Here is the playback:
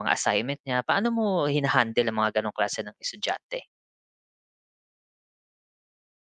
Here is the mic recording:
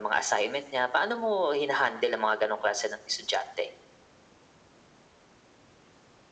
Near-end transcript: none

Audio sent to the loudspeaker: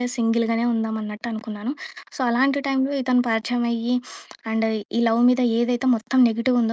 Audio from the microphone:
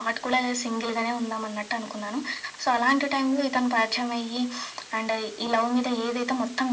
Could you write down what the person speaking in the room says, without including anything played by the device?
none

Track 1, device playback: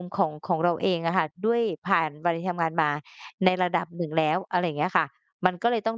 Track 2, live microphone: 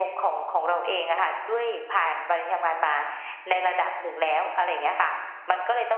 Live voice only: none

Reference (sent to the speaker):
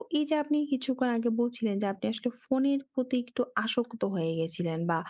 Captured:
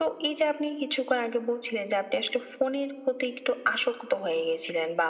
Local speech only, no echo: none

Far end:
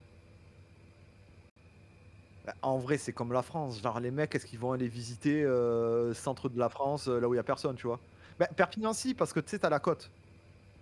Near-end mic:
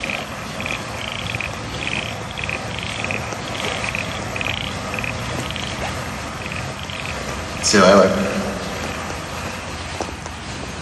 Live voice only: c'est vrai, ouais.

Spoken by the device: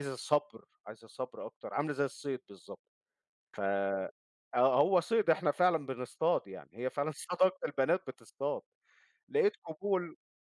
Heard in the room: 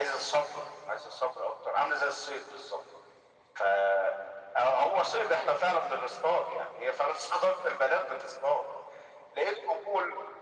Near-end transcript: none

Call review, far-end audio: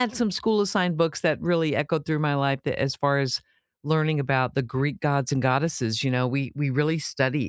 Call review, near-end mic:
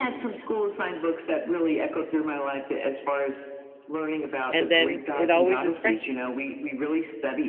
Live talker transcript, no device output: and then it always is fresh,

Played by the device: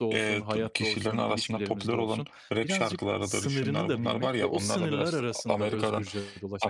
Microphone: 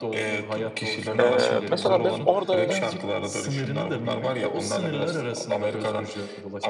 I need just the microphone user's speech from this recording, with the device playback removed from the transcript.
Eee, mesela ben orada,

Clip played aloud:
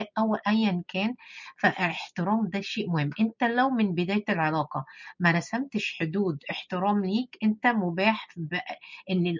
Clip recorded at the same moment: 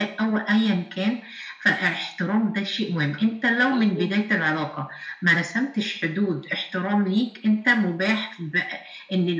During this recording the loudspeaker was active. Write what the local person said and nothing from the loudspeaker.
مضبوط،

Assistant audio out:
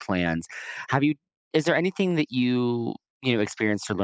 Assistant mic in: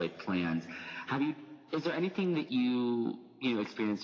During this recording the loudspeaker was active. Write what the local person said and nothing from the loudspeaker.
none

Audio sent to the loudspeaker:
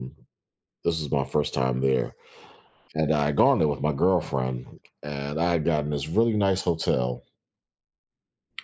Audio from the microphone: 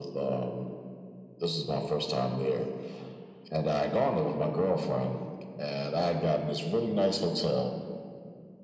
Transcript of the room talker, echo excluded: none

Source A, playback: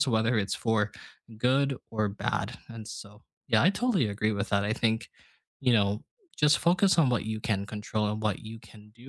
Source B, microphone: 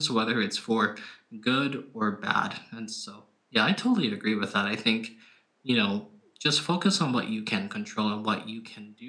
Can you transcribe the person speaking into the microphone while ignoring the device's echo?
none

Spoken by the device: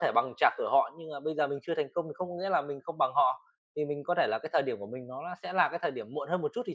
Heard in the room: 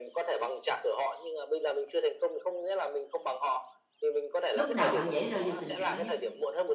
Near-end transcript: Lúc nào bạn dễ rơi vào tình trạng đó nhất?

